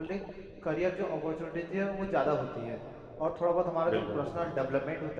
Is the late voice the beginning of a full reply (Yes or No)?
No